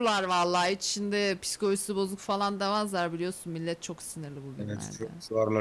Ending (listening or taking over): taking over